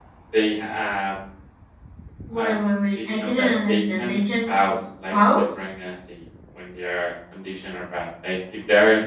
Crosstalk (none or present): present